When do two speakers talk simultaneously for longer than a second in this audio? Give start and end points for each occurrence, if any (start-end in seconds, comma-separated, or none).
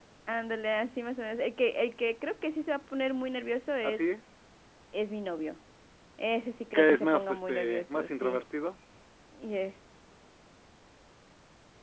6.7-8.4